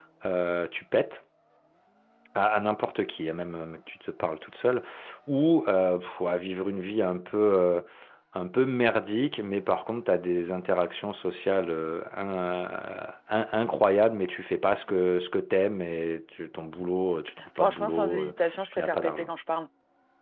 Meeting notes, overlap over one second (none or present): present